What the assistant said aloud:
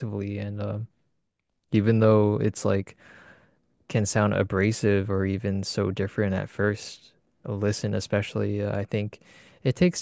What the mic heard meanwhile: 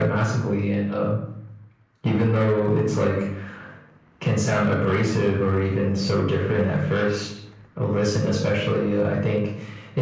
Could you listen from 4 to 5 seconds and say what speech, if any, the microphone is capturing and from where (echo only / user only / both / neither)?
echo only